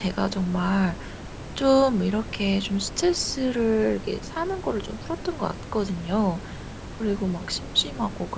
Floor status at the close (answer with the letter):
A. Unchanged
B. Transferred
A